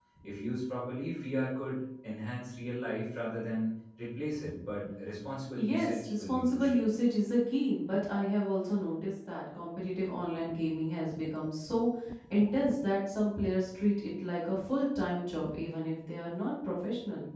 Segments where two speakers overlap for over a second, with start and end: 5.6-6.8

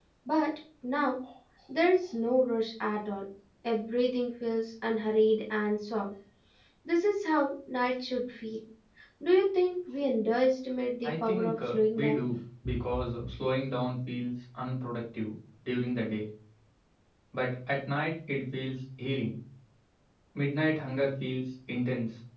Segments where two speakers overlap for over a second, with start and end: 11.0-12.2

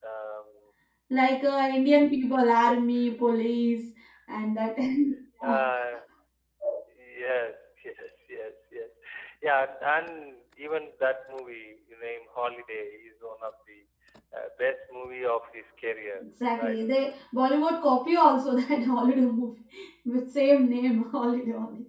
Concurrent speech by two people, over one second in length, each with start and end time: none

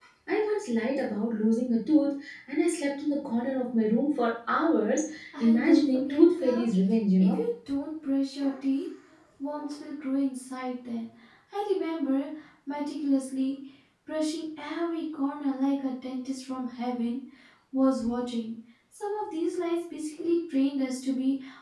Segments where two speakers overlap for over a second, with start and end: 5.4-6.6

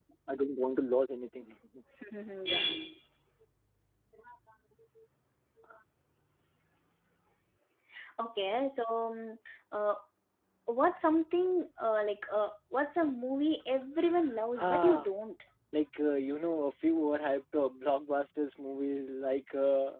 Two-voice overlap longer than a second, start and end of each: none

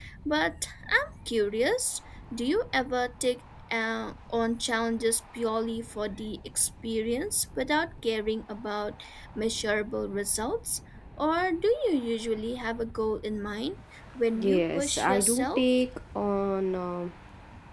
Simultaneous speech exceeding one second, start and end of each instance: 14.4-15.7

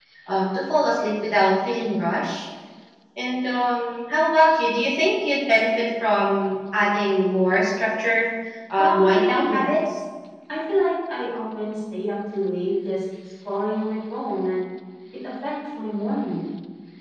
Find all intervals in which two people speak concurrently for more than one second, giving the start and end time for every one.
8.8-10.0

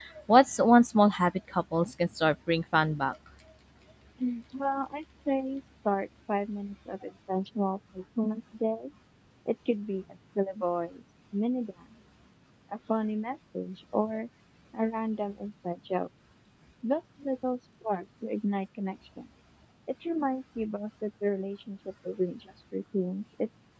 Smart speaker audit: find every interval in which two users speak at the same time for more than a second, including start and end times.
none

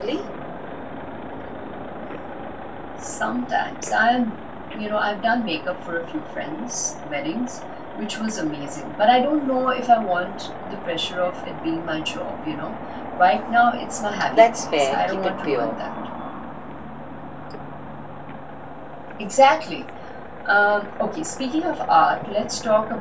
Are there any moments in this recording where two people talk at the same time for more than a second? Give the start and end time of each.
14.3-15.8

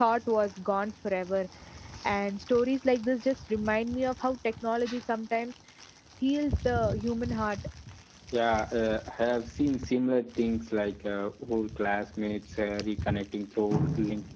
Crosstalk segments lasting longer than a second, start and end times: none

